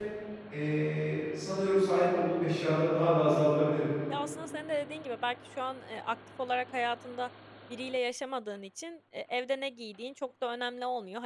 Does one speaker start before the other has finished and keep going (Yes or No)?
No